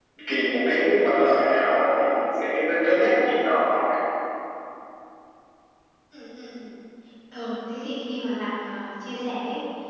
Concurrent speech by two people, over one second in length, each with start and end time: none

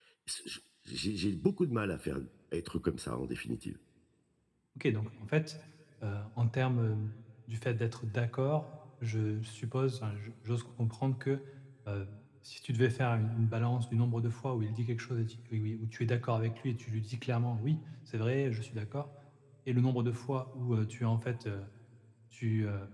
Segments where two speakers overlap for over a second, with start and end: none

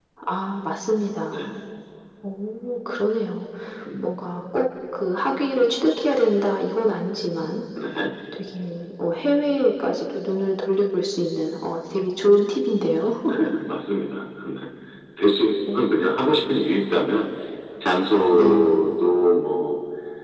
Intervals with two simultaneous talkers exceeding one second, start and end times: none

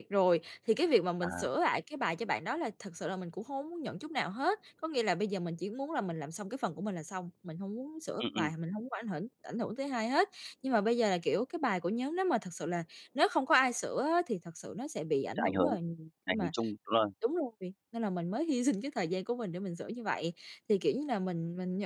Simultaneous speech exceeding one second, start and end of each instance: none

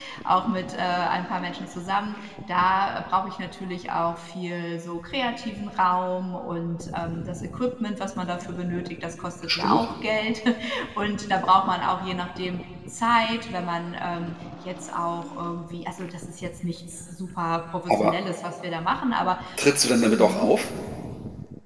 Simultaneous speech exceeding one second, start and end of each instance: none

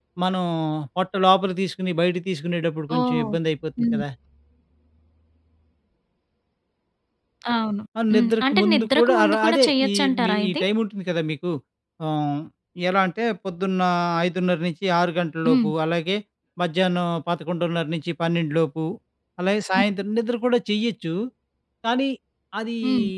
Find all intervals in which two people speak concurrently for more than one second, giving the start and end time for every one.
8.1-10.6

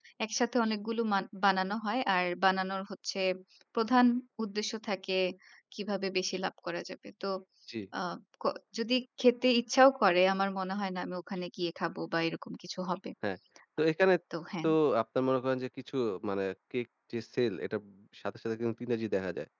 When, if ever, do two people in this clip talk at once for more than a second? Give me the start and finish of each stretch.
none

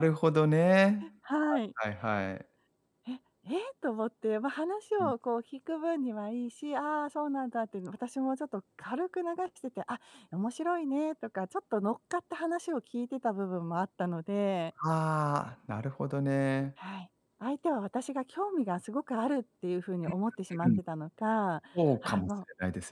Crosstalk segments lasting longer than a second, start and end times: none

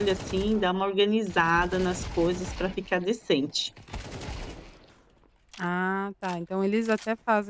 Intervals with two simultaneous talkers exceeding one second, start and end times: none

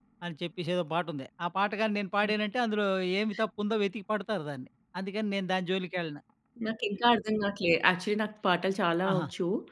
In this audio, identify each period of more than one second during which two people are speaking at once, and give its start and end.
none

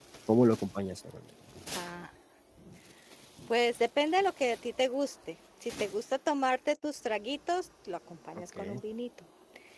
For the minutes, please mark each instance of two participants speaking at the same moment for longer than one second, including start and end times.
none

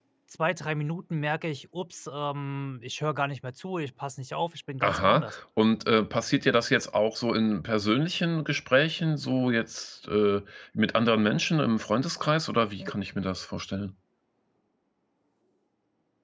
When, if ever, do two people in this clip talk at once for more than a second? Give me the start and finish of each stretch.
none

